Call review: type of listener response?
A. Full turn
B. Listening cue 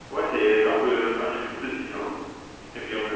A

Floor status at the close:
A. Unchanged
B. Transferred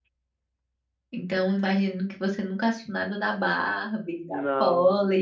A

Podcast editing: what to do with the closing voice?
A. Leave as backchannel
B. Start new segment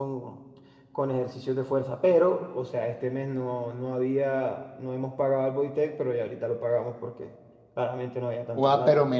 B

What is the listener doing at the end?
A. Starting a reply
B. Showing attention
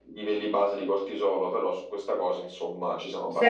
A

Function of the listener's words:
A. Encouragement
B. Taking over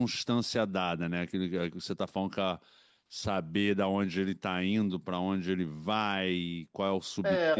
B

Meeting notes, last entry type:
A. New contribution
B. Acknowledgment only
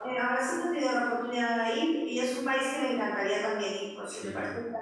B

